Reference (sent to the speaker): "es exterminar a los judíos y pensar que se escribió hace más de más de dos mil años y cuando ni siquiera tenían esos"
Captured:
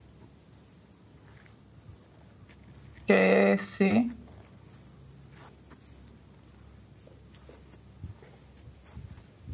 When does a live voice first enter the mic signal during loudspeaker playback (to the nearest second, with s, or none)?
3 s